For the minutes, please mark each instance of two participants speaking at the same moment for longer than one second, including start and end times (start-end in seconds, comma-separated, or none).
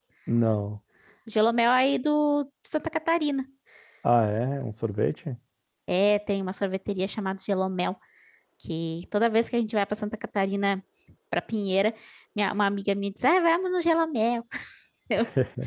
none